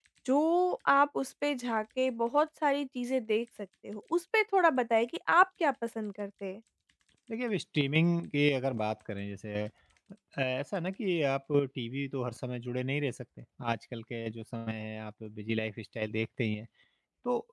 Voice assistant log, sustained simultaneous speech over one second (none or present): none